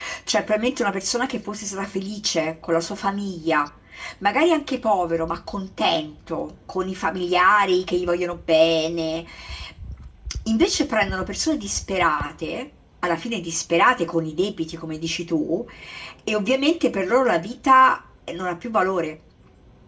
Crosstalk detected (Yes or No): No